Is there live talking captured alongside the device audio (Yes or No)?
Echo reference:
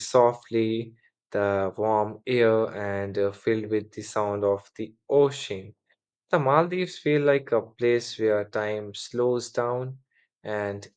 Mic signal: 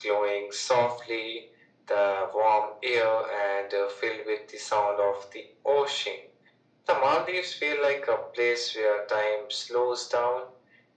No